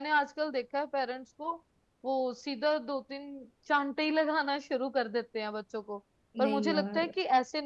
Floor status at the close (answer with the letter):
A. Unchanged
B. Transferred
A